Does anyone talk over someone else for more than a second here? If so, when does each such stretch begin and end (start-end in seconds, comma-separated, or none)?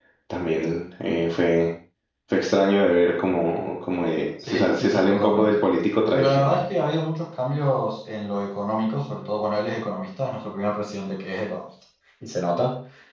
4.4-5.7